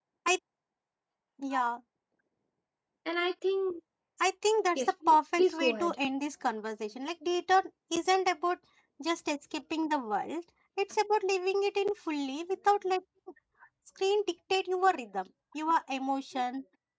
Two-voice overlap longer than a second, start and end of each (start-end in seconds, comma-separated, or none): 4.8-6.0